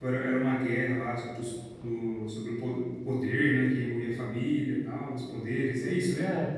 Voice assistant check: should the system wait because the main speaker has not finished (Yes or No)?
No